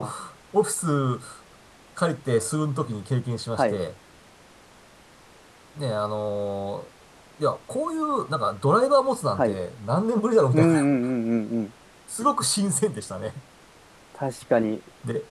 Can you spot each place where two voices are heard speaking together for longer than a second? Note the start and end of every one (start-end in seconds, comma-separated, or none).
none